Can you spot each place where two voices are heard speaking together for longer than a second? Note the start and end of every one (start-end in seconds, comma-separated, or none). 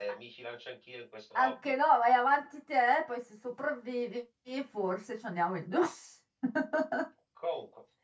none